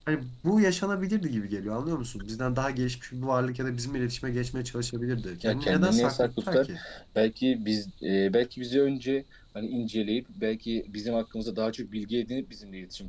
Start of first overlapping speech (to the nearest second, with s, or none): 5 s